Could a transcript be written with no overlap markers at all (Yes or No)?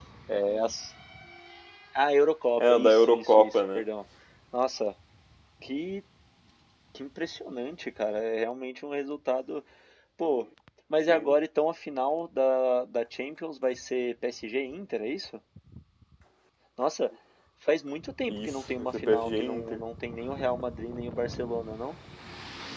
No